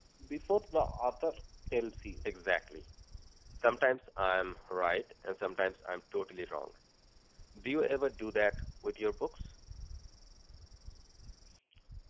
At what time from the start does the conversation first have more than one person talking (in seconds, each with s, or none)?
none